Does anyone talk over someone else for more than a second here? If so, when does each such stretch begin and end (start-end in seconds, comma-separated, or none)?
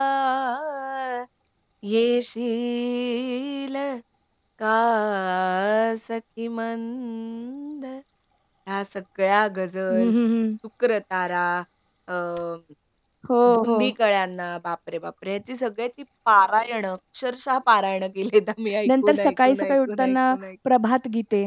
18.9-20.2